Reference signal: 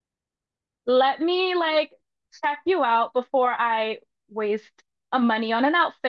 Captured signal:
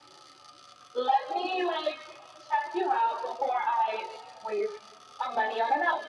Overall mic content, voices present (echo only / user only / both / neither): echo only